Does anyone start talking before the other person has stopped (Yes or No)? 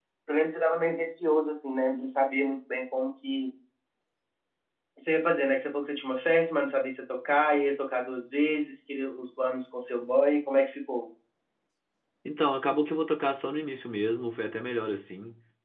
No